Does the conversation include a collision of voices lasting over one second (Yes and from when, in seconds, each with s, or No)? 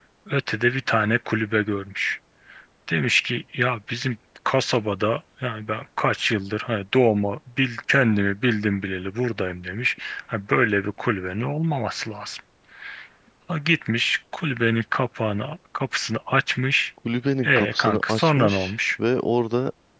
Yes, from 17.4 s